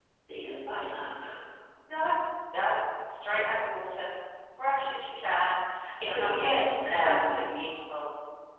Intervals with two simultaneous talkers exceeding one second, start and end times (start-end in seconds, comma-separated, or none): 6.1-7.4